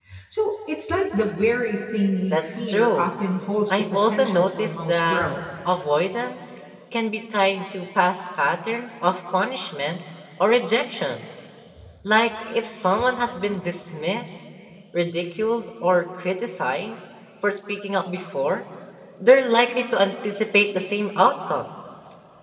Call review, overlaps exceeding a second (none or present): present